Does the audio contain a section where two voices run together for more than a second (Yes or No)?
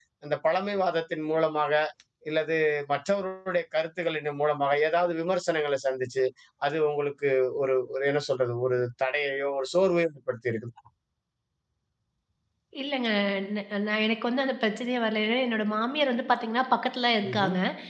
No